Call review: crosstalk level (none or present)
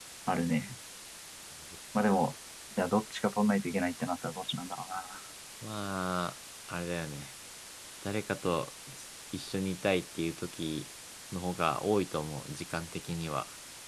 none